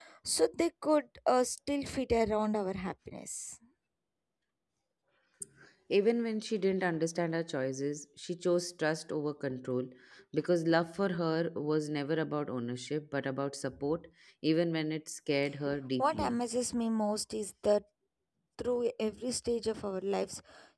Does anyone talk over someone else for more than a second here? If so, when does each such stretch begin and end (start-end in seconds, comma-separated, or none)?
none